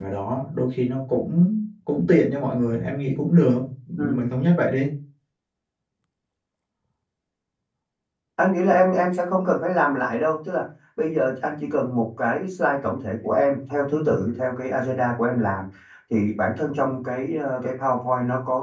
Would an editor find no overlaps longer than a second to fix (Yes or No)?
Yes